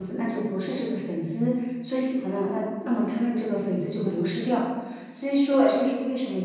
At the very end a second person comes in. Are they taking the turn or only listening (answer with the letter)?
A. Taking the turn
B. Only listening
B